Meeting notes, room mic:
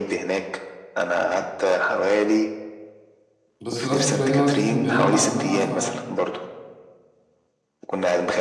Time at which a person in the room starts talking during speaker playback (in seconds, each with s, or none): 3.6 s